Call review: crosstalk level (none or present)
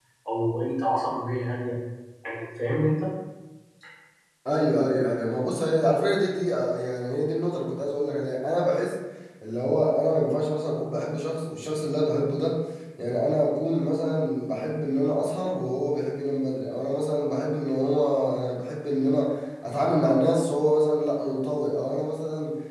none